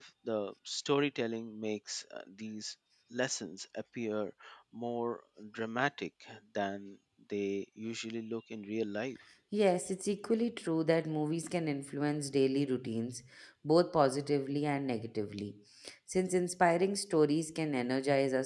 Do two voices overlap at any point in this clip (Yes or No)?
No